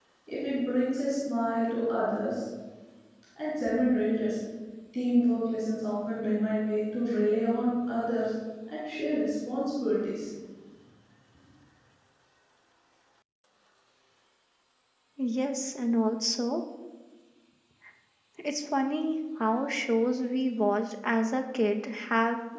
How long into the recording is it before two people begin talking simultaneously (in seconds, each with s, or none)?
none